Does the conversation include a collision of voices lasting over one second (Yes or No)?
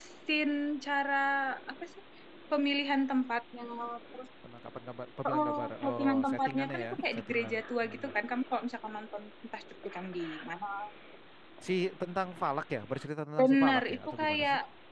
Yes